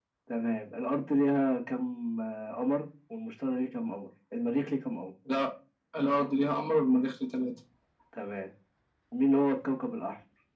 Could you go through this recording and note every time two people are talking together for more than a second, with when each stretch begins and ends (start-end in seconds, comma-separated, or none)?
none